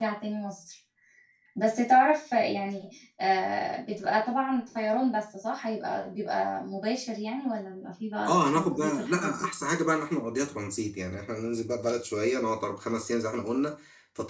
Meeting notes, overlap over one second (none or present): present